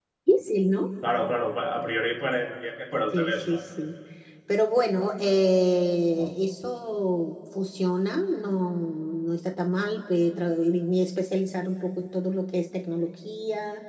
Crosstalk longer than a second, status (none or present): none